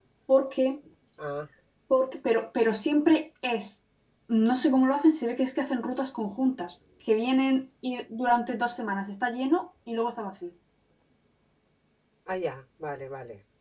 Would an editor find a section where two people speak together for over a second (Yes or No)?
No